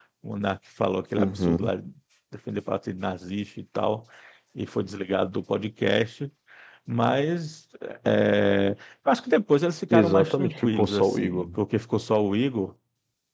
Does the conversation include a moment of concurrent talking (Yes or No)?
Yes